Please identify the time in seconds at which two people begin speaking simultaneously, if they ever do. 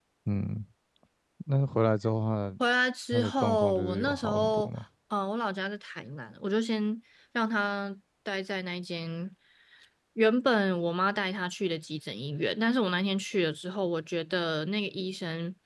3.1 s

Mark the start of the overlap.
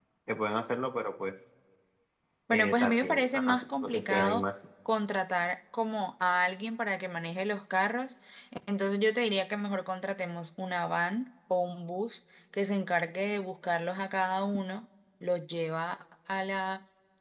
2.5 s

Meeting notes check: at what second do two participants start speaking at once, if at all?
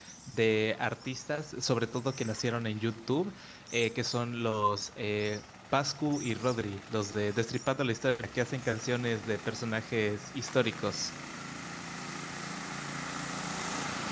none

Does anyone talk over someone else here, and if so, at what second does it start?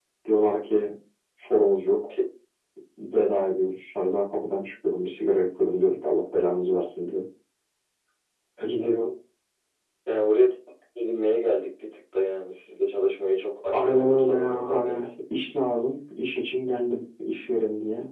13.7 s

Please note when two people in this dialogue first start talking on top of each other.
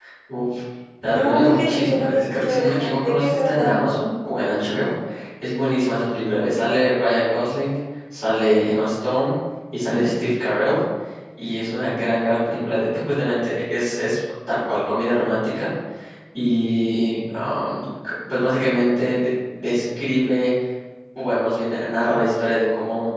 1.1 s

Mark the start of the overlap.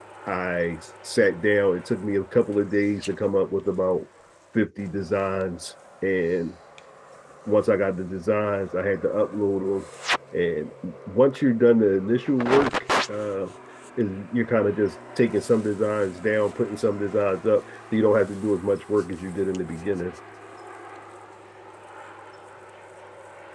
none

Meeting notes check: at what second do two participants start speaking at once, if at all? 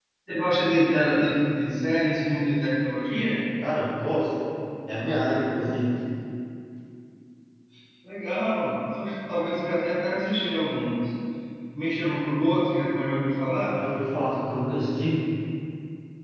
none

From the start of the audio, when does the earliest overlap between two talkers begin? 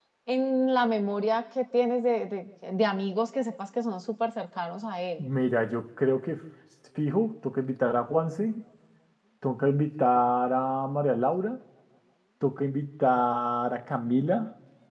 none

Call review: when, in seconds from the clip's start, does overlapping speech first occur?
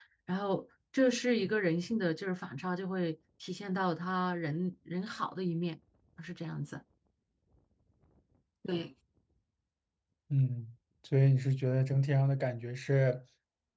none

